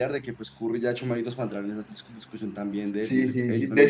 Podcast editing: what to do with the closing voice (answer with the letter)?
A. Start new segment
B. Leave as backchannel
A